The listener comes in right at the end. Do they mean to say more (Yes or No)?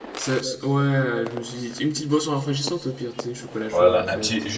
Yes